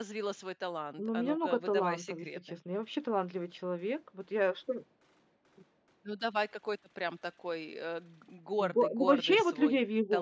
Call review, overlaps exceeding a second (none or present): present